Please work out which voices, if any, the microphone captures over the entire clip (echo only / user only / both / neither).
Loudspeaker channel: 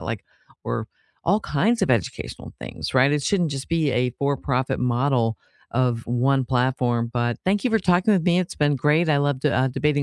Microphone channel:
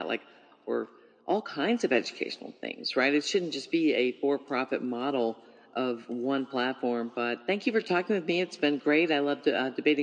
echo only